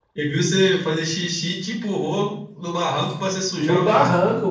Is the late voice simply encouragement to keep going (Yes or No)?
No